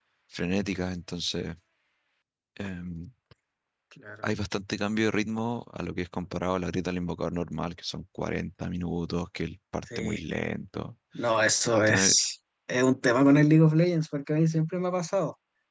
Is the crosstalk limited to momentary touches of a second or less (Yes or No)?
Yes